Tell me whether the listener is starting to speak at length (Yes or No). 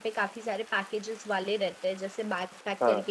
No